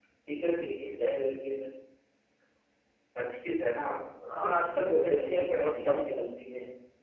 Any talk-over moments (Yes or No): Yes